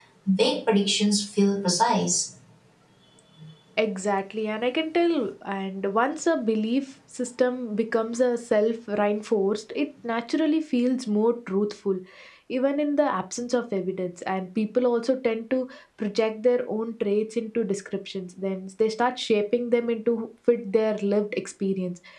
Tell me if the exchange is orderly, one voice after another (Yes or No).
Yes